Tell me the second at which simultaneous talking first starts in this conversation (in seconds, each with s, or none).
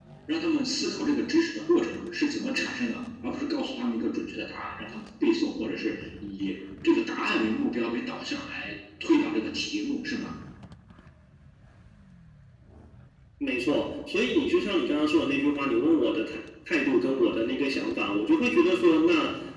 none